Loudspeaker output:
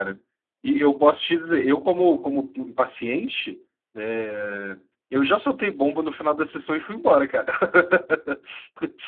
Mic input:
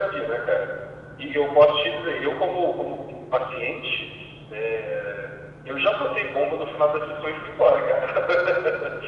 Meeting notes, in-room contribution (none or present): none